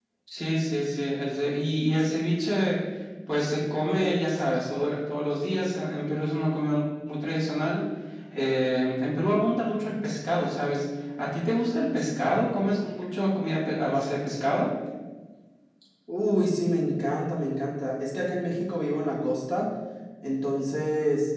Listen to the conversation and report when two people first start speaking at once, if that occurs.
none

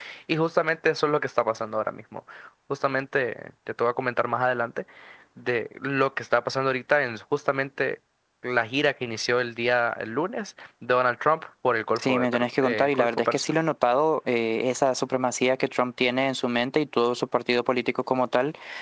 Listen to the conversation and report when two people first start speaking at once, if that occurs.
12.0 s

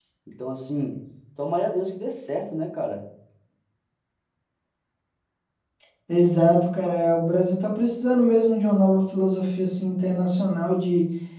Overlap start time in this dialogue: none

